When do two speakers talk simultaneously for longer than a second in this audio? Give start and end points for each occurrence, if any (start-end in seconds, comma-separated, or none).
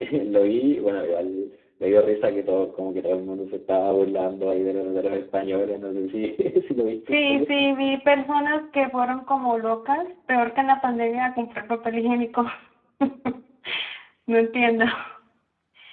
none